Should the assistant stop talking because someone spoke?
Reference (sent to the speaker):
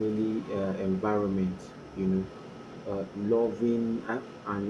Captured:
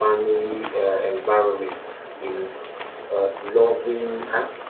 No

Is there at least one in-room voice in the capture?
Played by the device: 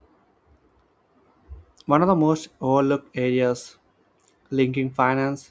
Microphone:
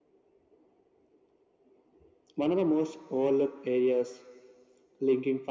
No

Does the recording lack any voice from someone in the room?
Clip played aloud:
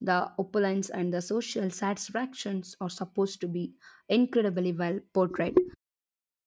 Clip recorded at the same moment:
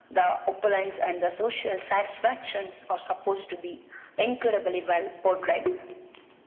Yes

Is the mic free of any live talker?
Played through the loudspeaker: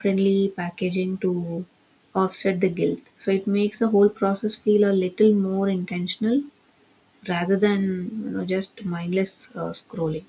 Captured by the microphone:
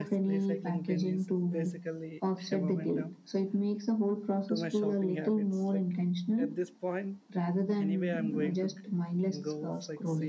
No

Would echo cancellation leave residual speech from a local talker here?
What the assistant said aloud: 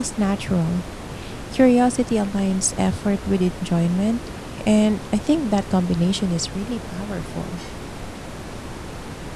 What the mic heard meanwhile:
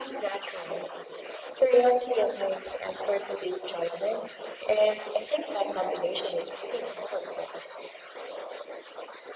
No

